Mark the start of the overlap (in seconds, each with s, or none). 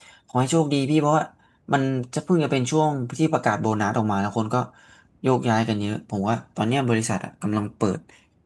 none